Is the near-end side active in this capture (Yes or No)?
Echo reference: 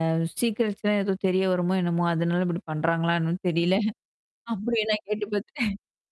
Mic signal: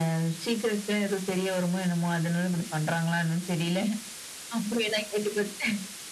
No